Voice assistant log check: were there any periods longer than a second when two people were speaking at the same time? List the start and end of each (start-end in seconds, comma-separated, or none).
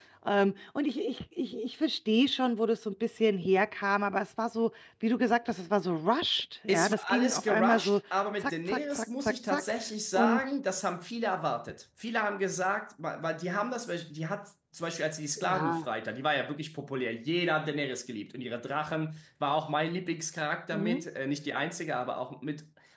6.7-8.0, 8.4-9.6